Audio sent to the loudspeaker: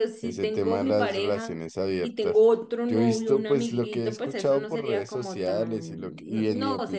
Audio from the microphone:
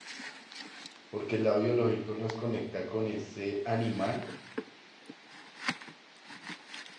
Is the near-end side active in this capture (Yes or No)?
Yes